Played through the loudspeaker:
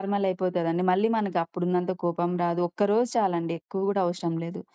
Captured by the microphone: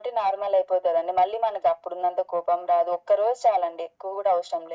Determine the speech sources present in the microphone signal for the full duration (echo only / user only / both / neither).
echo only